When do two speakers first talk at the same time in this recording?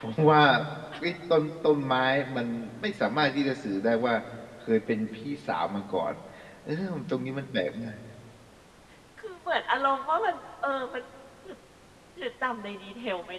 none

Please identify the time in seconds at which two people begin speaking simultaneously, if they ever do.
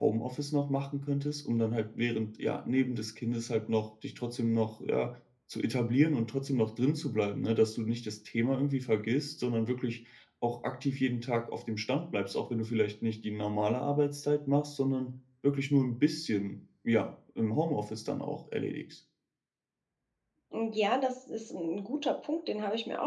none

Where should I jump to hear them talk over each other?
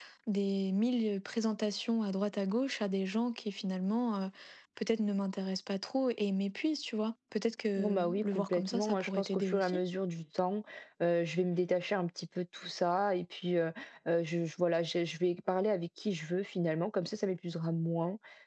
7.8 s

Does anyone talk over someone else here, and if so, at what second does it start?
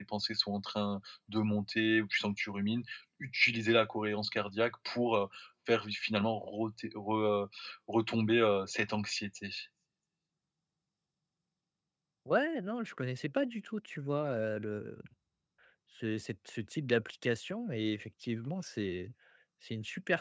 none

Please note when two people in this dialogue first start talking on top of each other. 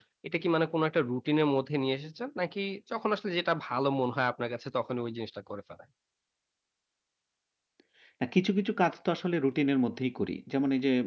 none

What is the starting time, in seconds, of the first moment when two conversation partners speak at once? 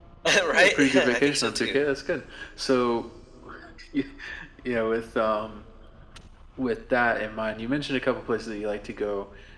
0.5 s

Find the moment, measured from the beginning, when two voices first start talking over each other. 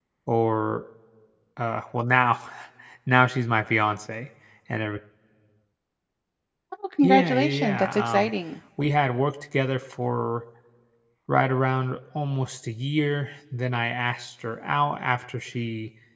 7.0 s

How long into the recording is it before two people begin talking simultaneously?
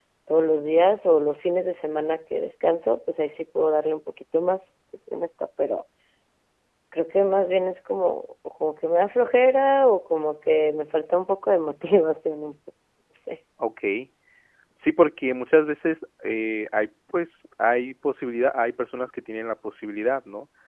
none

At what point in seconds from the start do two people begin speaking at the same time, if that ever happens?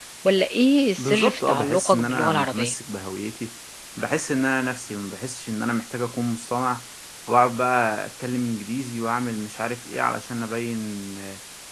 1.0 s

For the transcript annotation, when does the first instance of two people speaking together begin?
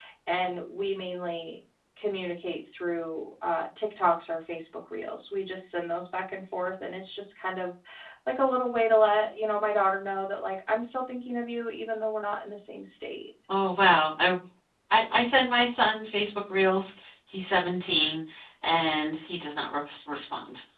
none

